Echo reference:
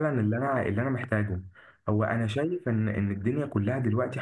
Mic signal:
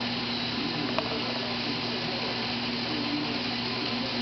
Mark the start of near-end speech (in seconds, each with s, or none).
none